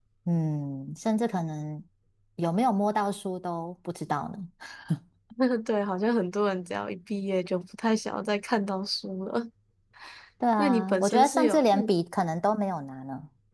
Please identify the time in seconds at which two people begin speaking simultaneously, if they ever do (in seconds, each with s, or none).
10.6 s